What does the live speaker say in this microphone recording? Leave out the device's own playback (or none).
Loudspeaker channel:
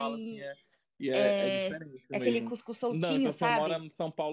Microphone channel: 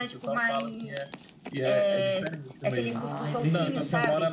Ah, entendi.